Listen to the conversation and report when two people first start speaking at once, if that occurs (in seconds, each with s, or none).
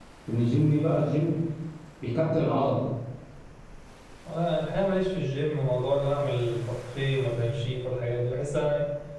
none